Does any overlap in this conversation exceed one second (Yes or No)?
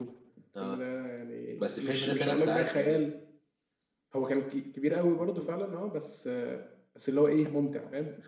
Yes